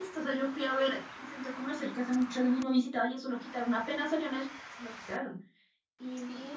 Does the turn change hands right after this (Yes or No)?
Yes